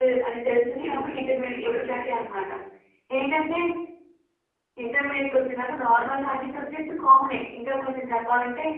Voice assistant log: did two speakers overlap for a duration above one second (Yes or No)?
Yes